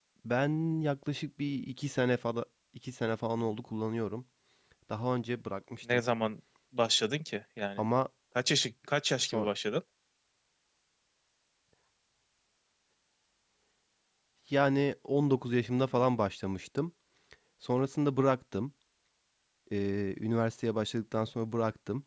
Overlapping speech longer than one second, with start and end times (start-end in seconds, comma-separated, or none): none